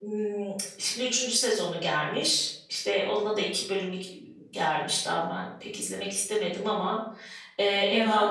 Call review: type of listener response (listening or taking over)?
listening